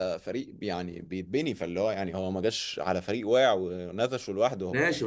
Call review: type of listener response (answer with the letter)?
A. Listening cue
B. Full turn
B